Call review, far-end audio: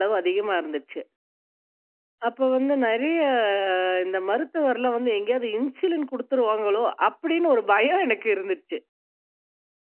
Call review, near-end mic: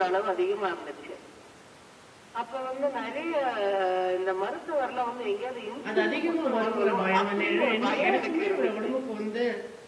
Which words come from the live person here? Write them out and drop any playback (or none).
அது அதிகமா வருங்கிற பயம். என்ன ஏன்னா என்ன எனக்குமே என்னோட உடம்புக்கு வந்து